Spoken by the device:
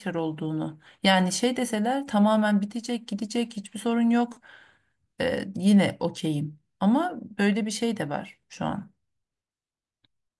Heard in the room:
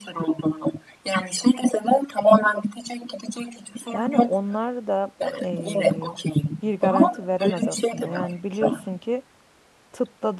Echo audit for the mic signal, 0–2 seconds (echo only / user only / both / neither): echo only